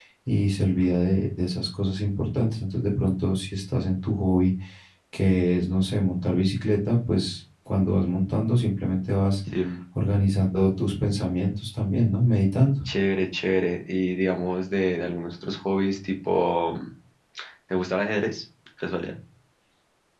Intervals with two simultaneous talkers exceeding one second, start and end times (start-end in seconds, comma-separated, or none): none